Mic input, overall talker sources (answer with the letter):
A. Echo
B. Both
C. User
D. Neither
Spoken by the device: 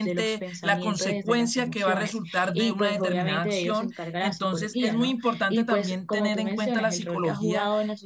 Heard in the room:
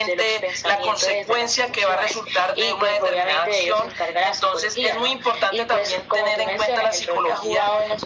A